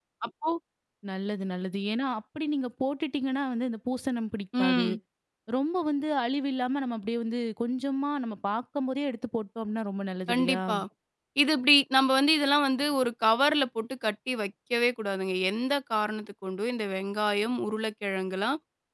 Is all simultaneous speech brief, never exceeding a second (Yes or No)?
Yes